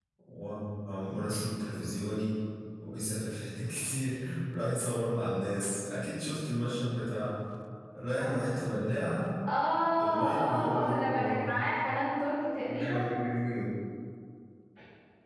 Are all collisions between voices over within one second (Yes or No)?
No